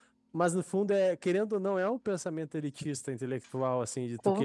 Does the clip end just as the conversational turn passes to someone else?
No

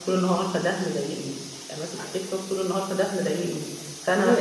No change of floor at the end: No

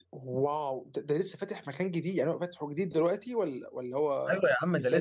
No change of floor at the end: No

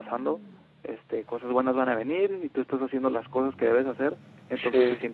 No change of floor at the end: Yes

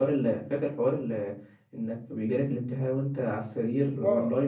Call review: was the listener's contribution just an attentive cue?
No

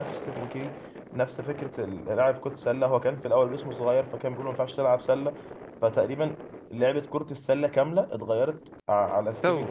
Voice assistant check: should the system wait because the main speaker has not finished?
Yes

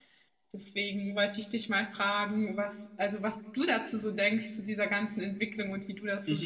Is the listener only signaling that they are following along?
No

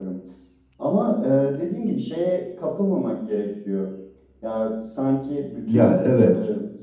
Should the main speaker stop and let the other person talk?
No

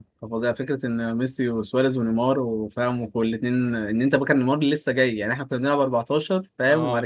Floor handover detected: No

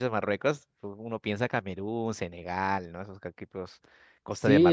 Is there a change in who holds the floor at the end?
Yes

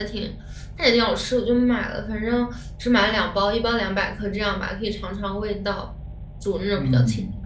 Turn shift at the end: Yes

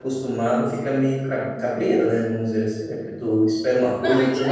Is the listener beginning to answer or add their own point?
Yes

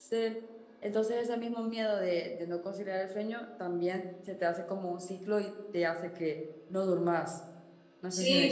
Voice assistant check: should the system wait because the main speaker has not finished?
No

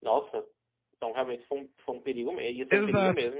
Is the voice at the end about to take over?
Yes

